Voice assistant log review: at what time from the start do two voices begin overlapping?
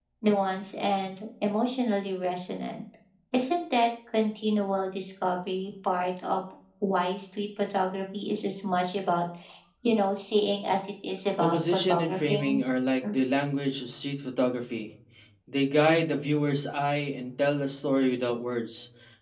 11.4 s

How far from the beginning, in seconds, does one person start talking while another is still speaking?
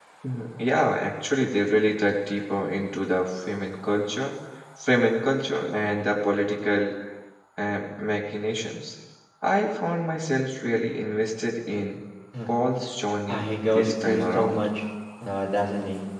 13.3 s

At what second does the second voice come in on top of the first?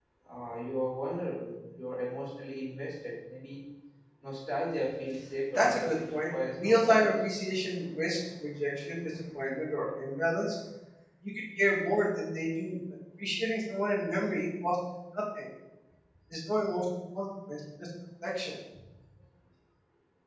5.5 s

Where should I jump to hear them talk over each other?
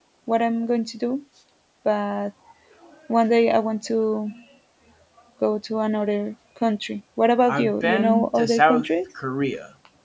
7.5 s

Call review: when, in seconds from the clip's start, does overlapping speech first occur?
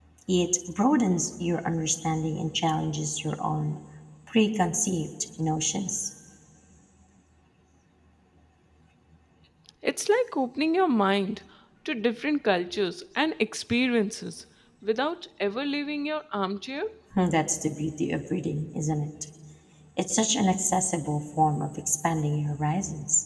none

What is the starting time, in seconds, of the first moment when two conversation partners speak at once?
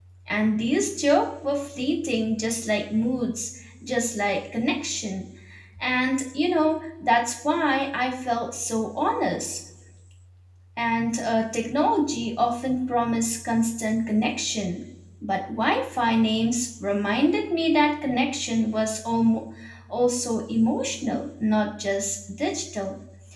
none

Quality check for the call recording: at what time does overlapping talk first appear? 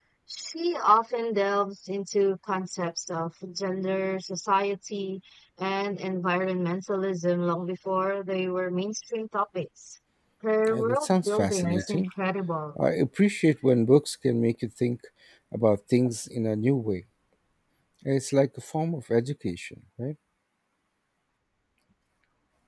10.7 s

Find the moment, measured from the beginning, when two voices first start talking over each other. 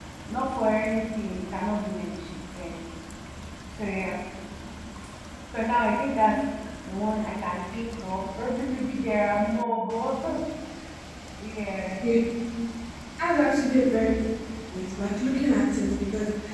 none

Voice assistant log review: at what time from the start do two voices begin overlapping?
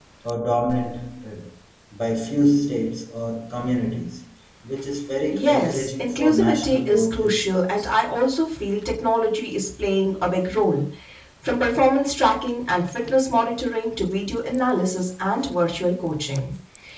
5.3 s

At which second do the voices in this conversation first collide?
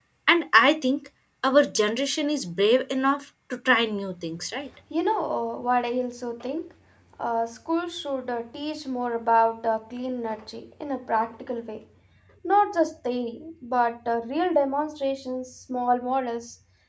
none

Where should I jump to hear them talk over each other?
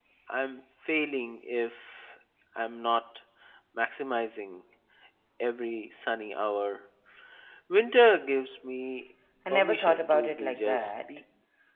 9.5 s

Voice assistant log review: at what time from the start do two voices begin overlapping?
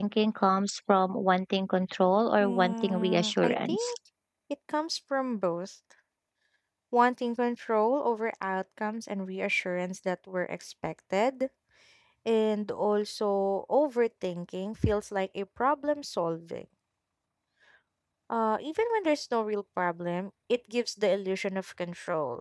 2.4 s

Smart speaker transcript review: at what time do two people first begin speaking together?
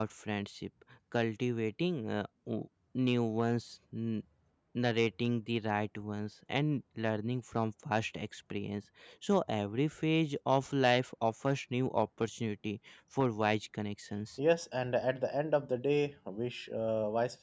none

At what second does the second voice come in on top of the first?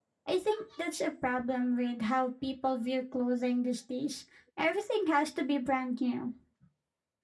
none

